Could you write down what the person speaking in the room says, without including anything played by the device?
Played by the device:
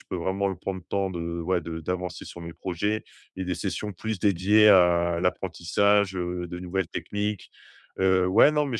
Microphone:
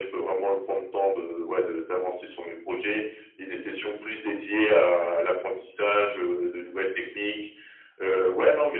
none

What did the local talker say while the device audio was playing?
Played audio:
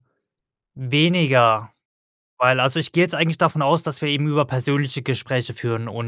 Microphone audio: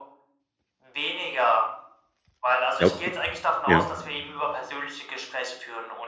Glaubst du? Ja.

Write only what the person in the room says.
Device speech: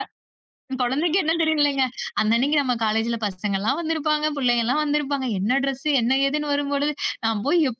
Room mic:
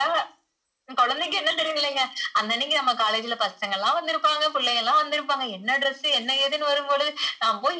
none

